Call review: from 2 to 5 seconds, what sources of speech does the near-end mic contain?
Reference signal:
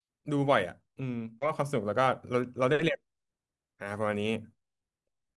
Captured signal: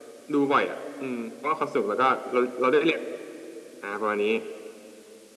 echo only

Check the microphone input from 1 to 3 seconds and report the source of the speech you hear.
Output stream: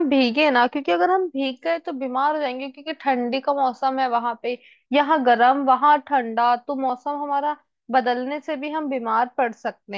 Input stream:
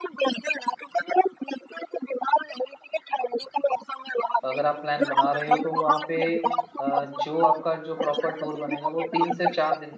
echo only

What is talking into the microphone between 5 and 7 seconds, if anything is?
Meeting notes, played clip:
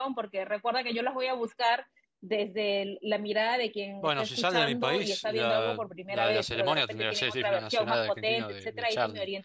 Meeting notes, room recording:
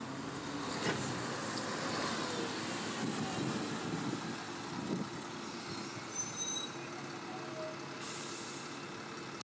neither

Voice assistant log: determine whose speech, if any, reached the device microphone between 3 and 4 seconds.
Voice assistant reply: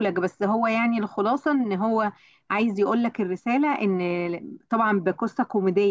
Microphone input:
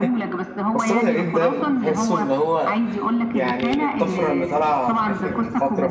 both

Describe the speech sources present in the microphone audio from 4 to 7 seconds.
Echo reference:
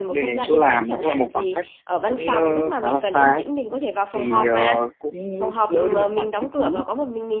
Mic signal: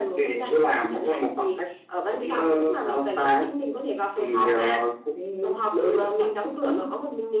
echo only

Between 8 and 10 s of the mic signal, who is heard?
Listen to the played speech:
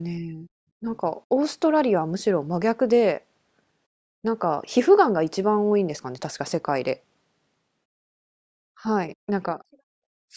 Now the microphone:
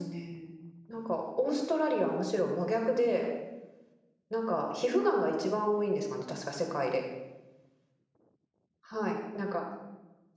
echo only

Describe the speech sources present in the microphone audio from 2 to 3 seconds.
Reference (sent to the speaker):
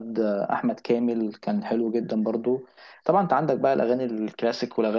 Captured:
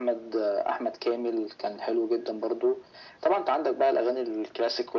echo only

